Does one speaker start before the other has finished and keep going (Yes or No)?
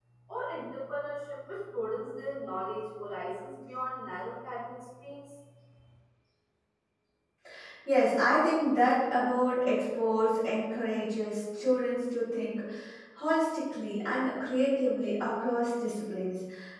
No